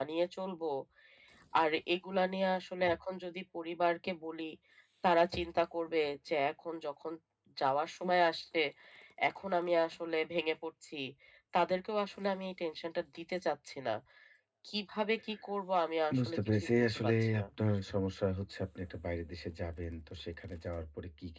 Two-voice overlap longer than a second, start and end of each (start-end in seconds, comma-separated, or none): 16.2-17.4